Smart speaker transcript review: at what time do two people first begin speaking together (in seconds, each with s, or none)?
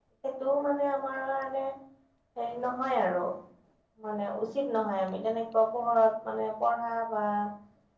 none